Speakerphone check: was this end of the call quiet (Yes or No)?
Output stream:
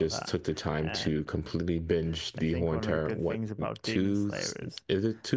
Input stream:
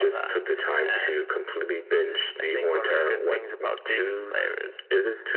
Yes